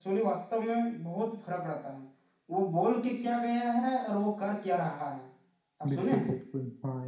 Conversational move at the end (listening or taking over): taking over